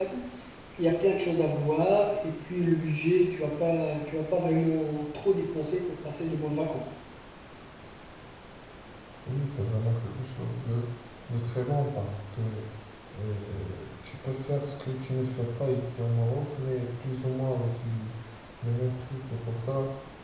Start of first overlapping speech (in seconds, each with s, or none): none